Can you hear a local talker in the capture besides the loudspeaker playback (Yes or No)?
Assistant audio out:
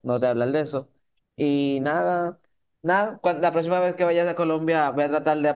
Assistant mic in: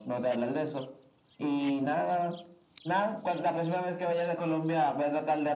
No